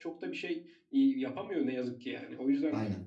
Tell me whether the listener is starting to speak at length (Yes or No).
No